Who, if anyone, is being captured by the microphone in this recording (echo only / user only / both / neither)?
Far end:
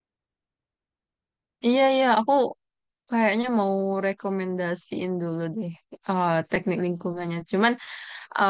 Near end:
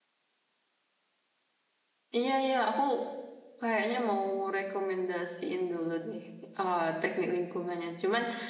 echo only